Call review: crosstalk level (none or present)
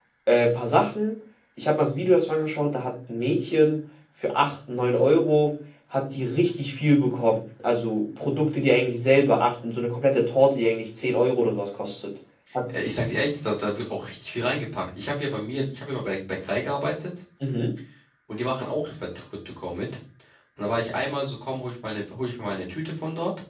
none